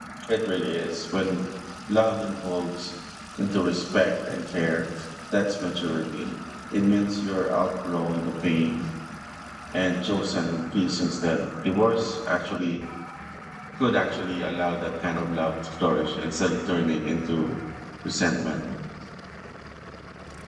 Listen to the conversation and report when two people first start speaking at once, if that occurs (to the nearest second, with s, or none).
none